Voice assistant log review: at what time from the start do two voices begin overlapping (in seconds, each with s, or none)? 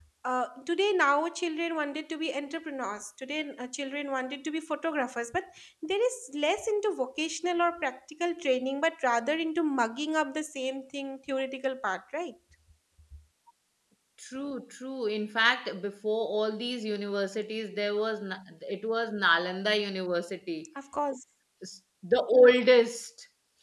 none